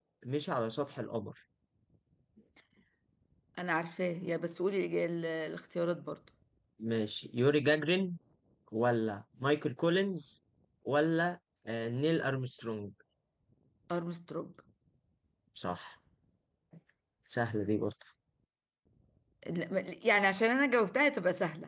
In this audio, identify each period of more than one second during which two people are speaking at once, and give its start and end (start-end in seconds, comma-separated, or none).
none